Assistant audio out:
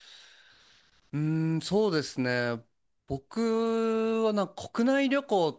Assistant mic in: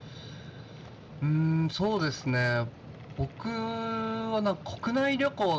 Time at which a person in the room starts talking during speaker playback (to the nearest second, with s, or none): none